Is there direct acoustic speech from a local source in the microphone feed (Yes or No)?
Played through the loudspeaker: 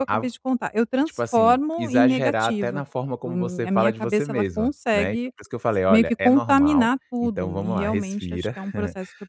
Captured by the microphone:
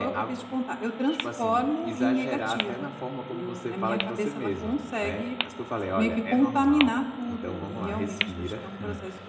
No